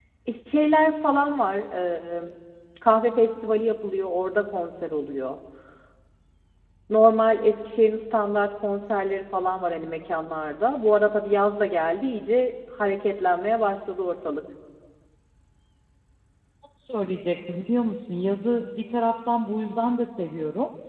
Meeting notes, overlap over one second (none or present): none